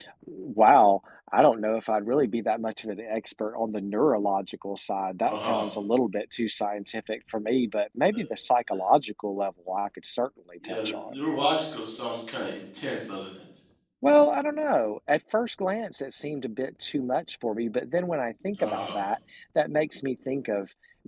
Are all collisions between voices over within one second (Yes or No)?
Yes